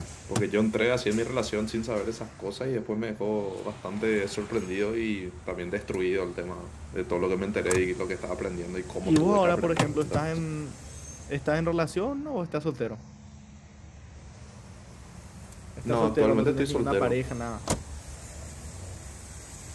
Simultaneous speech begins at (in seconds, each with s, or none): 9.0 s